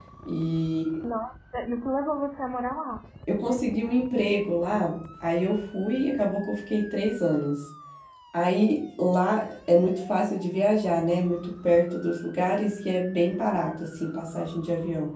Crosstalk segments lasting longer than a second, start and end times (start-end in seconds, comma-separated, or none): none